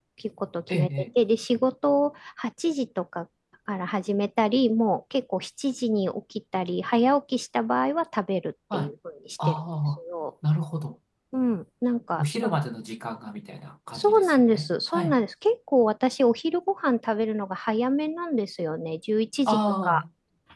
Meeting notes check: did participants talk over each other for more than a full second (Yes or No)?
Yes